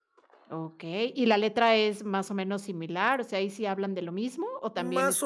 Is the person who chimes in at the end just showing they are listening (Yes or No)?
No